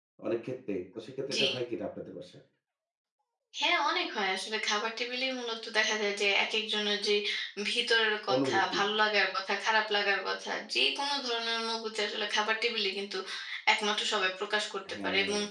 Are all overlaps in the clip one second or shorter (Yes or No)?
Yes